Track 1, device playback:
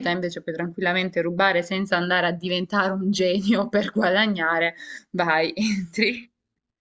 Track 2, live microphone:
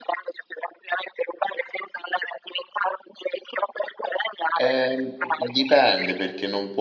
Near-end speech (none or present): present